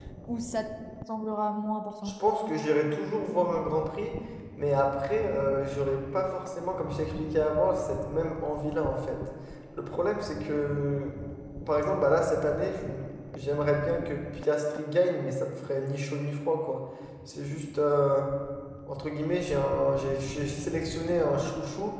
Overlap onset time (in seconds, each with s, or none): none